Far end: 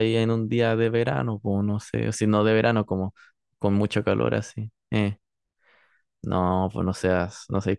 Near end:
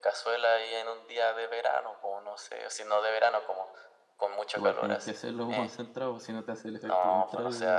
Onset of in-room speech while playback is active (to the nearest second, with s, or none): 5 s